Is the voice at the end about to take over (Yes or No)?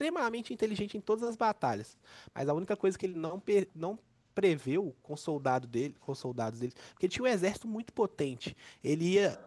No